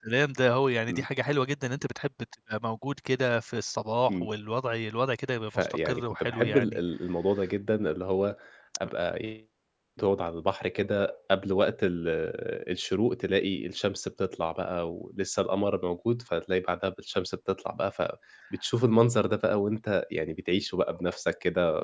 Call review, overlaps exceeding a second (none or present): present